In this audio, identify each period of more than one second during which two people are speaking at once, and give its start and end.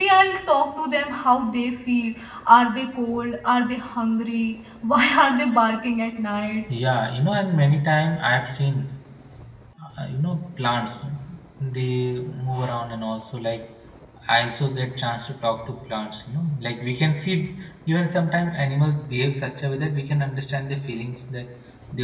none

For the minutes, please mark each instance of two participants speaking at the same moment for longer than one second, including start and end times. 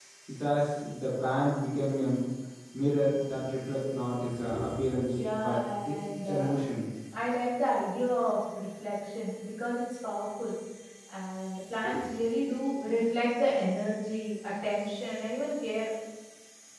5.1-6.5

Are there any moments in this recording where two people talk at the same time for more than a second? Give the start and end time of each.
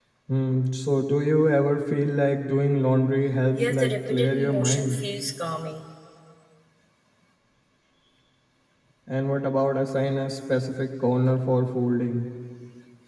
3.6-5.0

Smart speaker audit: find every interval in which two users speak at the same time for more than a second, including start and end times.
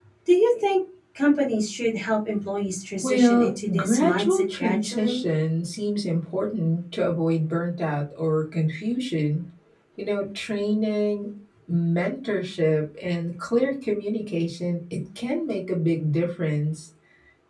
3.0-5.2

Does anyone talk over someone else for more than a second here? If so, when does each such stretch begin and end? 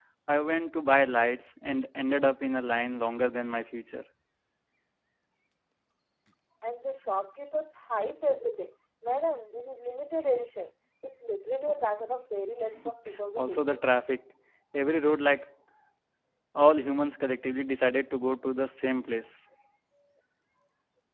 none

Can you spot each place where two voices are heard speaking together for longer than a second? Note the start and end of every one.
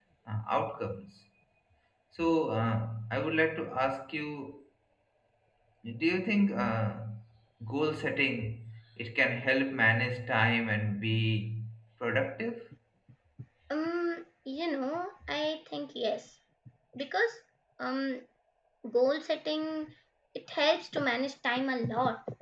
none

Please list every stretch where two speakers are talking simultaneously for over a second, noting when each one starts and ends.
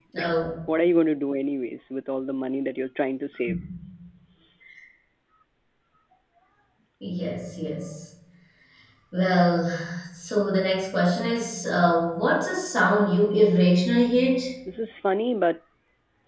none

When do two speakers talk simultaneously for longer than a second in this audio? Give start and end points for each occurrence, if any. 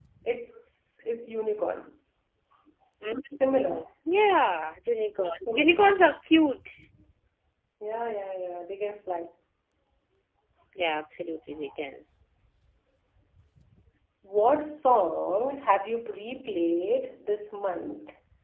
none

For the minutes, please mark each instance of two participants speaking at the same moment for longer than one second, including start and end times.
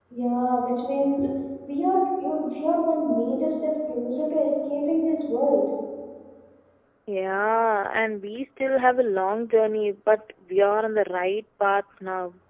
none

